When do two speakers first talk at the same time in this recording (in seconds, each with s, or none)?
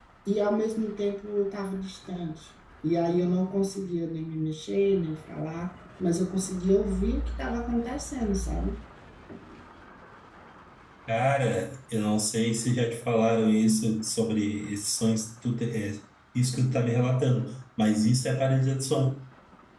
none